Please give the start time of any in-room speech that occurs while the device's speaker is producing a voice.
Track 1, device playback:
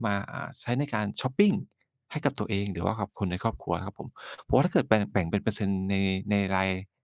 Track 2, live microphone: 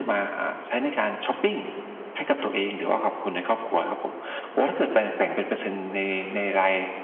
none

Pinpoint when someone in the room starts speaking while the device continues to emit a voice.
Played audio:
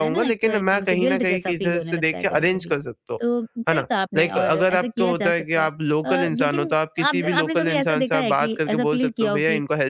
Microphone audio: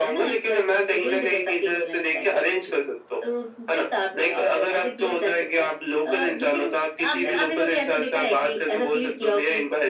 none

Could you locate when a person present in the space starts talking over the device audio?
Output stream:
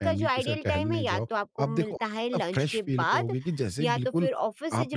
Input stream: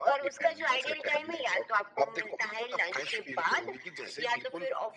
none

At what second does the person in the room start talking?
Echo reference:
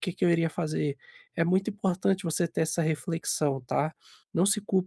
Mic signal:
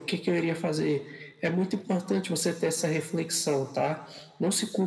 none

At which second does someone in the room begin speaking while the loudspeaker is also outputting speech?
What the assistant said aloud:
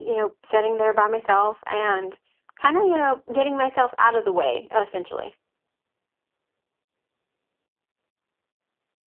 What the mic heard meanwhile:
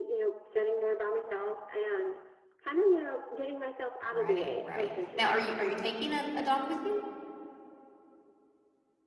4.0 s

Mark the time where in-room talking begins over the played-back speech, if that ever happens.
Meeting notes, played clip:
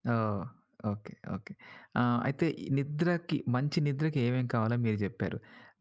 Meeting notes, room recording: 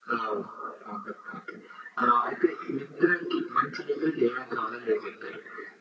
none

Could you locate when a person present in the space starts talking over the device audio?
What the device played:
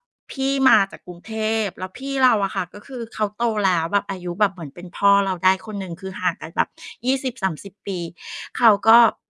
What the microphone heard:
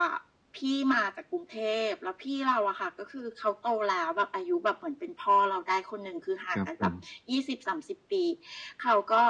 6.5 s

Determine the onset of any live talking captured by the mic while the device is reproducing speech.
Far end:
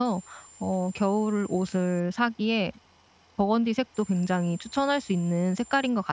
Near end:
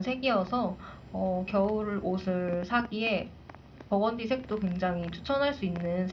none

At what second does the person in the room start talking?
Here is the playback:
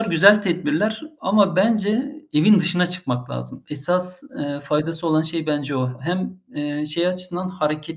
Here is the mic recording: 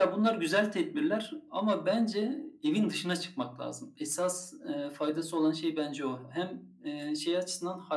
none

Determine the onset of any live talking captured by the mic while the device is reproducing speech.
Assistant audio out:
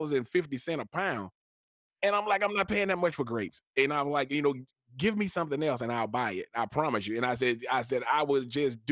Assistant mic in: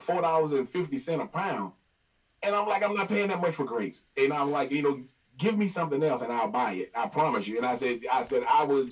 none

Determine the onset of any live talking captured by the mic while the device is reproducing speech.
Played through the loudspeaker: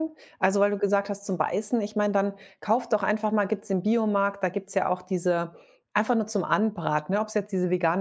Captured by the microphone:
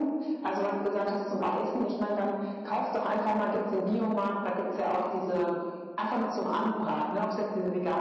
none

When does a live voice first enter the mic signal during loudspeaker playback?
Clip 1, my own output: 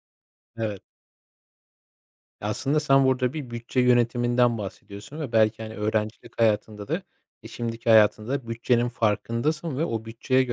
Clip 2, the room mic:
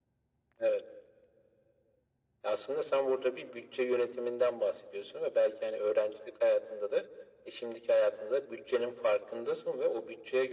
none

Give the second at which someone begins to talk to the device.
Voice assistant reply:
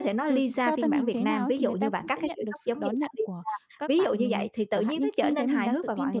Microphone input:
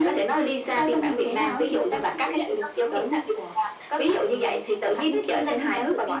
none

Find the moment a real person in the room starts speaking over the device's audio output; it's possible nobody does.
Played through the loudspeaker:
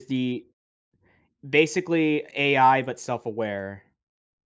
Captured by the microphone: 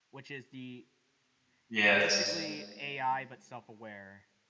1.7 s

